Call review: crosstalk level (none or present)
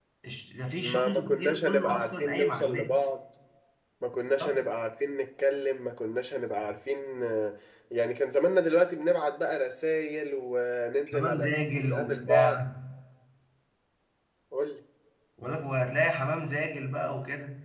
present